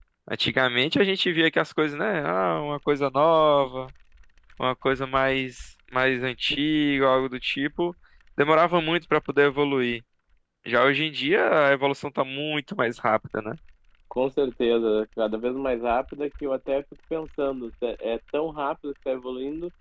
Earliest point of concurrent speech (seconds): none

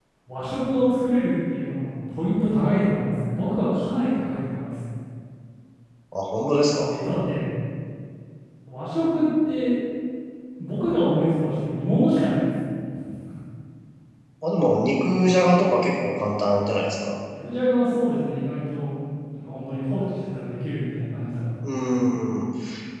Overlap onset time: none

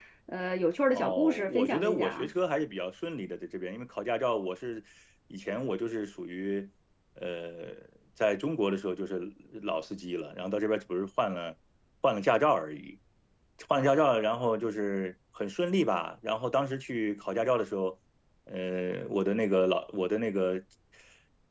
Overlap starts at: 0.9 s

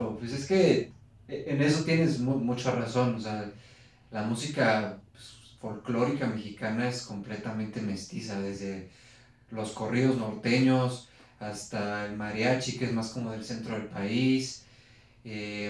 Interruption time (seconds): none

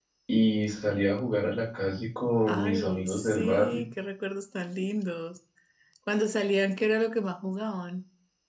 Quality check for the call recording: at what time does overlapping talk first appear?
2.5 s

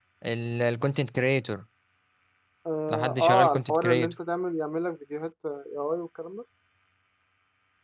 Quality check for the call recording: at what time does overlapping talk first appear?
2.9 s

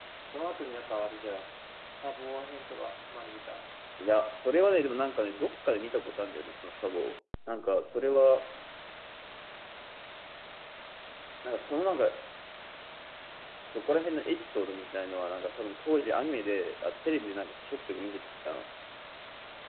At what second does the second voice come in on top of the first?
none

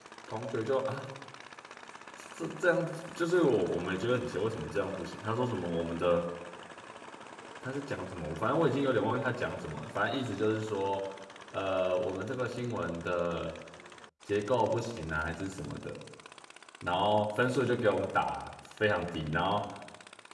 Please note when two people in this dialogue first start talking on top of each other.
none

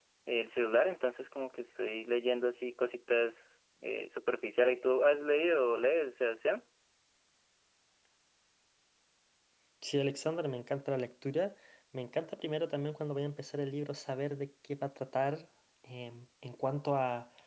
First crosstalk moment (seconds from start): none

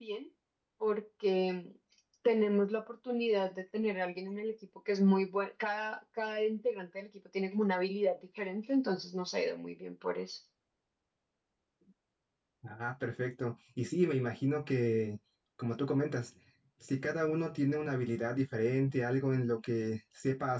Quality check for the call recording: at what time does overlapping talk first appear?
none

